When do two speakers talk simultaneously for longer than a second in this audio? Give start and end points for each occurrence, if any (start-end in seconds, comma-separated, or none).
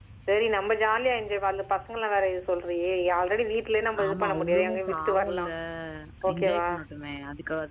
4.0-5.5